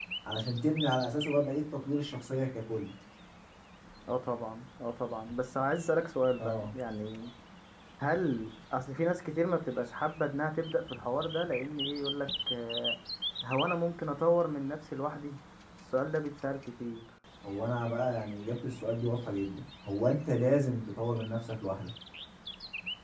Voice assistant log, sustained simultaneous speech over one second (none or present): none